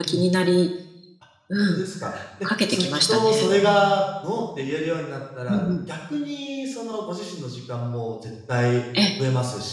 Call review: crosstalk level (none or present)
present